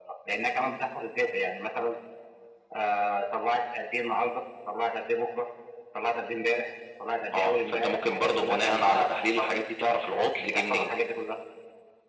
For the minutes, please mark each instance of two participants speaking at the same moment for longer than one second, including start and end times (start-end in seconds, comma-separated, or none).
7.3-9.5